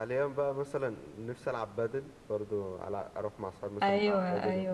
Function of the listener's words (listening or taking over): taking over